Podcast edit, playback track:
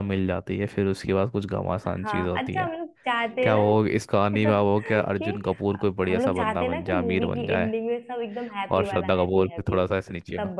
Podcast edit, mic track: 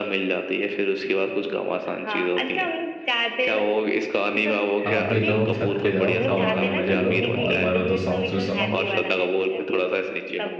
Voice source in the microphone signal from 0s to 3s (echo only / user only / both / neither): echo only